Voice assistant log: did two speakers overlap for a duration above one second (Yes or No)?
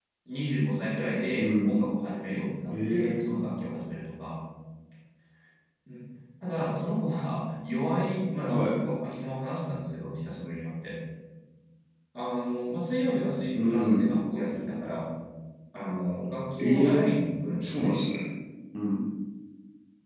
No